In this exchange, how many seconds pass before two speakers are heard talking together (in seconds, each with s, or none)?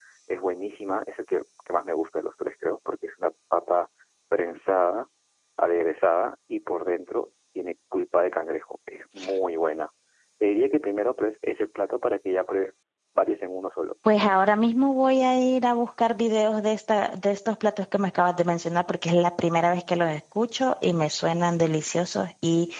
none